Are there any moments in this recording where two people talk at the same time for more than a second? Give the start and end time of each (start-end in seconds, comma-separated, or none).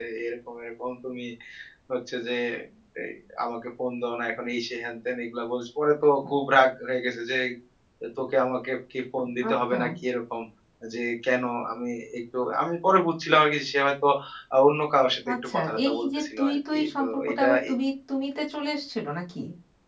15.5-17.5